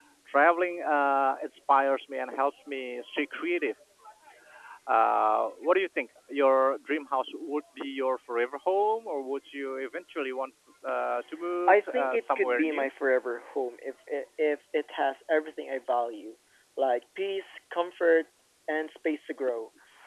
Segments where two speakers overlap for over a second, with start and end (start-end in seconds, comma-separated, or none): 11.7-12.9